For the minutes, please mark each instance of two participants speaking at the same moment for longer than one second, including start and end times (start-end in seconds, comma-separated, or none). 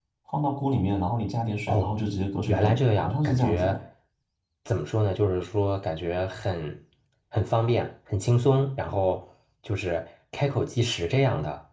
2.5-3.8